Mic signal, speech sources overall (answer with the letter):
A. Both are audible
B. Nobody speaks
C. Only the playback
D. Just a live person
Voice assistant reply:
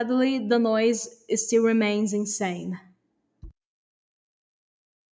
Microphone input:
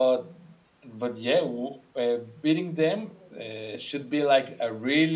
D